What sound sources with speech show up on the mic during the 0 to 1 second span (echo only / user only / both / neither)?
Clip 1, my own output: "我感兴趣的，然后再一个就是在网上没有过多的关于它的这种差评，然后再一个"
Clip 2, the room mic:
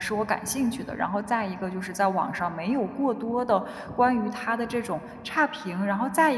echo only